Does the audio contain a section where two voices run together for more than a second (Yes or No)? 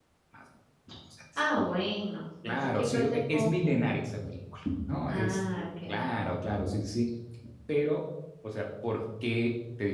Yes